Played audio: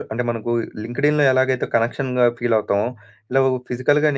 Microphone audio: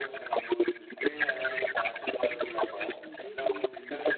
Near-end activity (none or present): present